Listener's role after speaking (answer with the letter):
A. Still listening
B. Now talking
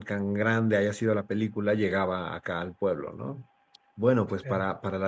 A